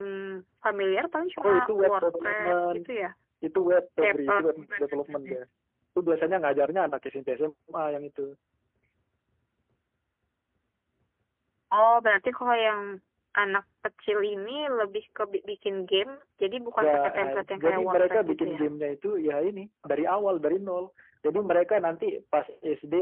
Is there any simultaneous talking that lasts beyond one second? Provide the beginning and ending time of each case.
1.4-2.8, 4.0-5.4, 16.8-18.6

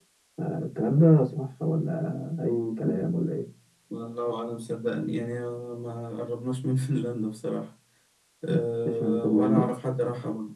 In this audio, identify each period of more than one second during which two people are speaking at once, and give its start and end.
8.5-9.7

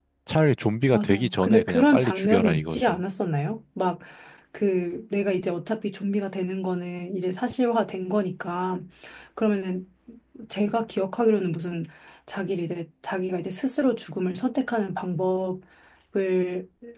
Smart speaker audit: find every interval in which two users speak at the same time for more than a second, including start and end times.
0.9-3.0

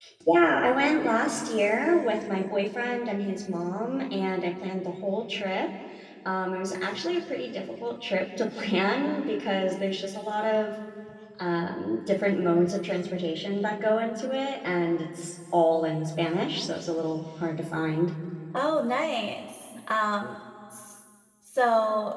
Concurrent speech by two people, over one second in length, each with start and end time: none

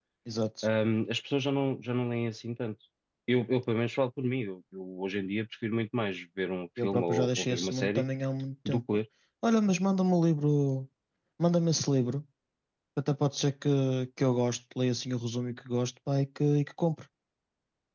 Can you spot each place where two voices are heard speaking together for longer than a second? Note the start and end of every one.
6.8-8.0

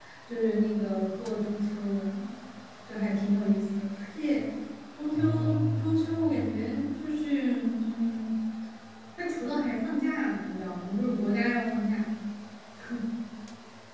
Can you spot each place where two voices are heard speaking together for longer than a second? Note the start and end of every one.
5.1-6.6

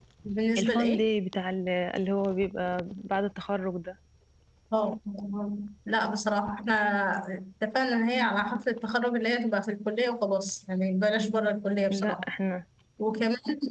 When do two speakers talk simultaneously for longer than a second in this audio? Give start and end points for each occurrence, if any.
none

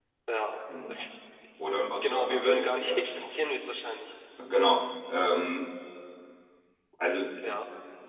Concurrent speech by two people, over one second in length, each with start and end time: 2.0-3.3

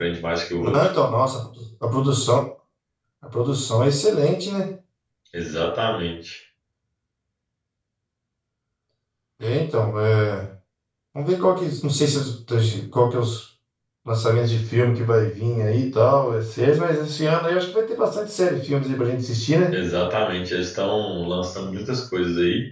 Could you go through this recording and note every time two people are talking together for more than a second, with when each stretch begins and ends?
none

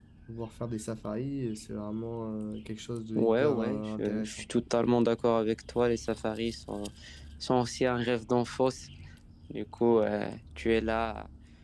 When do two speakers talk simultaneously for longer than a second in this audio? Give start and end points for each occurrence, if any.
3.1-4.5

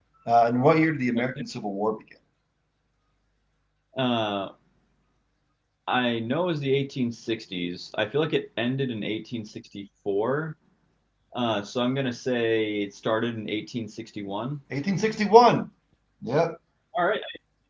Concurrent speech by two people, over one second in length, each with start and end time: none

